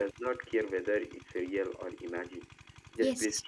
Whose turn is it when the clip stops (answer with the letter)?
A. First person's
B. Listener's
A